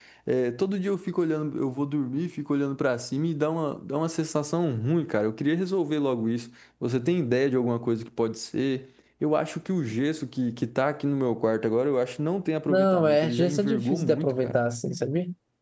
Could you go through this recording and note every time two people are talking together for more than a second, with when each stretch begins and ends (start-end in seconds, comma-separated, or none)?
12.7-14.5